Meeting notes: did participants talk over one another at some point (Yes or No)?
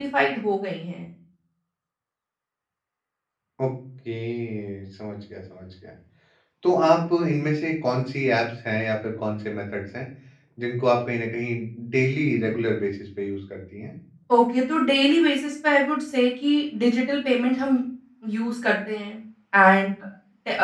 No